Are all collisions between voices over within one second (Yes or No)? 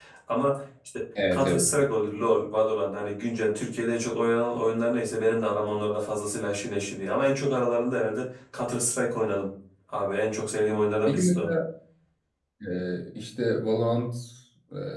Yes